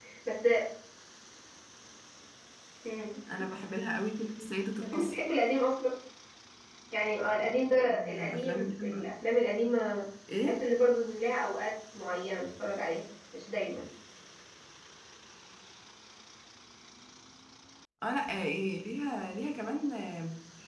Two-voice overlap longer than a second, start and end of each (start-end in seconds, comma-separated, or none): 7.8-9.1